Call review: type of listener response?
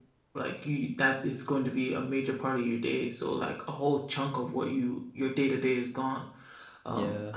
listening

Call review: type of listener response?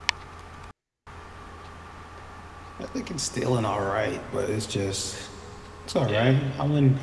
listening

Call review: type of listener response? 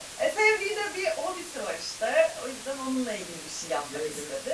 taking over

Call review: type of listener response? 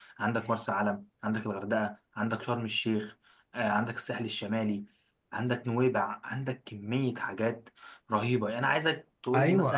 taking over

